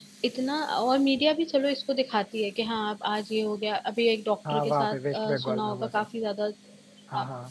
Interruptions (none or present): present